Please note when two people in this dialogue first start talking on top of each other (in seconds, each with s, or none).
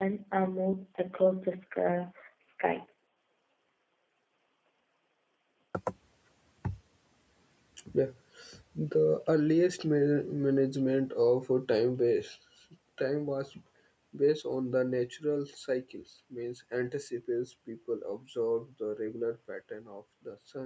none